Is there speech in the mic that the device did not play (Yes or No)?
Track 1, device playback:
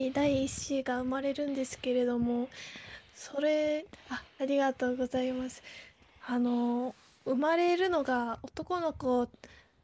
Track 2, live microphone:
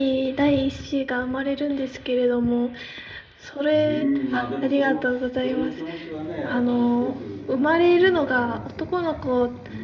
Yes